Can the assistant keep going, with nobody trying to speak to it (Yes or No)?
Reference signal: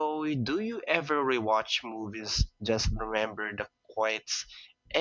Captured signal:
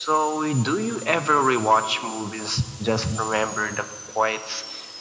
Yes